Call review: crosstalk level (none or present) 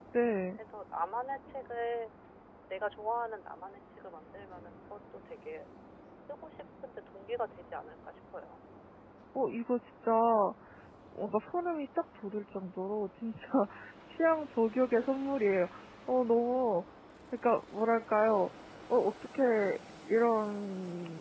none